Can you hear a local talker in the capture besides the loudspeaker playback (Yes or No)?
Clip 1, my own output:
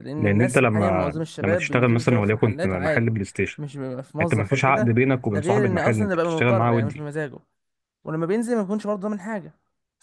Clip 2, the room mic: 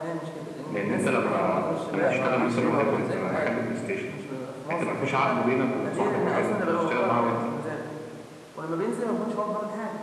Yes